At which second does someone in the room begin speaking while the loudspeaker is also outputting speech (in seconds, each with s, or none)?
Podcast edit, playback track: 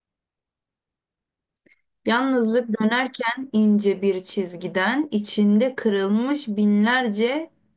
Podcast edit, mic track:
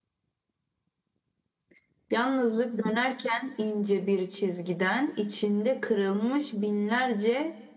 none